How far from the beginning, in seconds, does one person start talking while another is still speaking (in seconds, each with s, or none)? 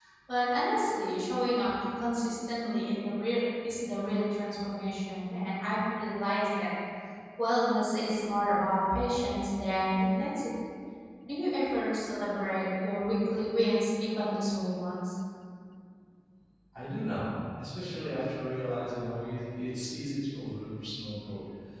none